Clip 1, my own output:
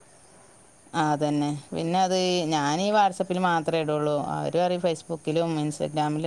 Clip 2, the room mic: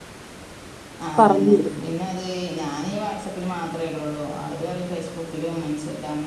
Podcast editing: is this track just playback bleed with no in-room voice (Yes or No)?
No